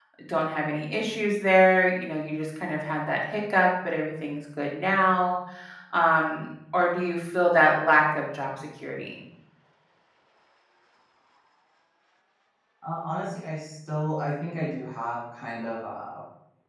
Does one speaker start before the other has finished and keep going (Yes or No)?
No